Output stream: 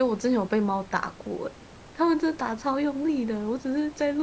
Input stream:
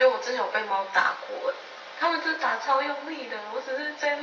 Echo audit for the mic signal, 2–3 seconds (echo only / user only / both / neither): echo only